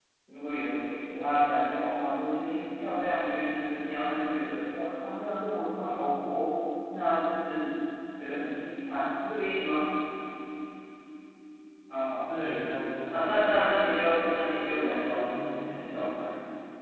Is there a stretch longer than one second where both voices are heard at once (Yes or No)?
Yes